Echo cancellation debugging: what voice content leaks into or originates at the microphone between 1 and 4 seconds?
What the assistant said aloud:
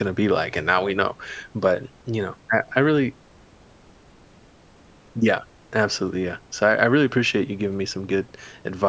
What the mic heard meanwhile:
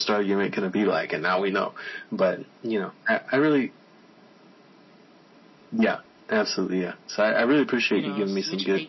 echo only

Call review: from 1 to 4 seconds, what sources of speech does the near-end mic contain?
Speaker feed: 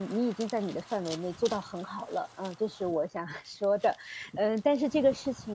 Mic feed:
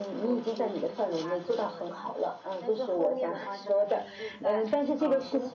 both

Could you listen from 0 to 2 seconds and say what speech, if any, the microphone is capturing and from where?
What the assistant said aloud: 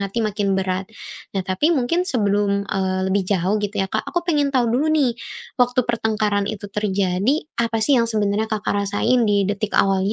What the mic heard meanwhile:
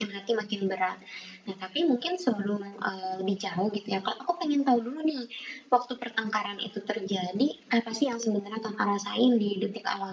echo only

